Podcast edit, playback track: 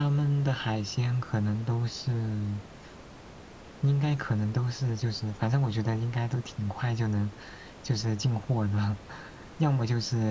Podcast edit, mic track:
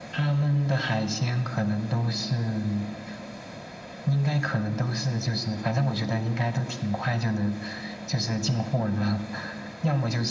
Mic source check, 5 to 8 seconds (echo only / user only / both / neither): echo only